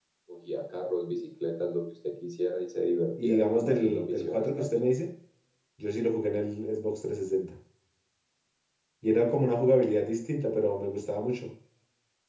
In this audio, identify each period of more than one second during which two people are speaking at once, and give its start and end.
3.2-4.8

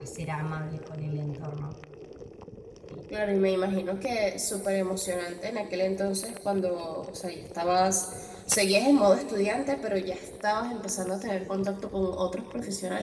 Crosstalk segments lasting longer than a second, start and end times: none

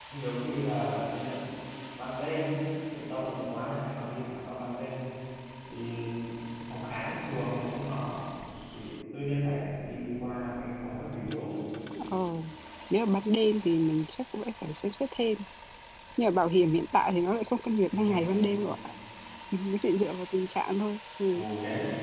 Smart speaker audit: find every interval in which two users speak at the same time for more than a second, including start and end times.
none

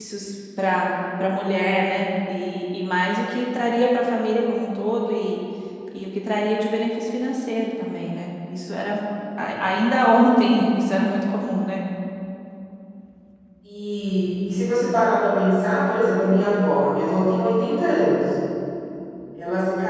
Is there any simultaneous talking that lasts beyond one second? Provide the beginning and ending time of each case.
none

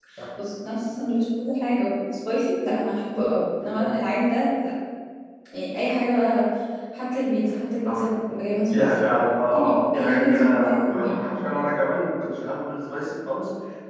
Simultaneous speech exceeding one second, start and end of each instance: 9.5-11.2

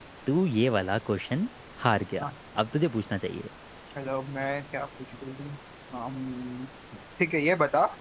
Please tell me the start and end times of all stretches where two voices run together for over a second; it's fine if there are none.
none

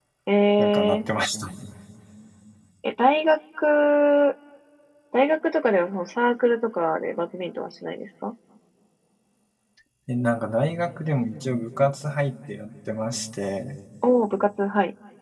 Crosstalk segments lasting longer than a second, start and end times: none

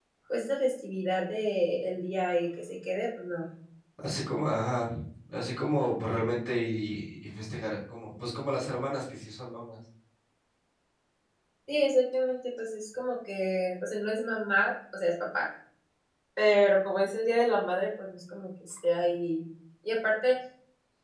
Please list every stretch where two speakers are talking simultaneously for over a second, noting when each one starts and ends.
none

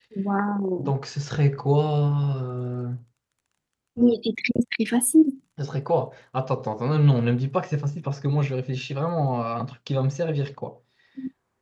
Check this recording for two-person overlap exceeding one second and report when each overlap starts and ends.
none

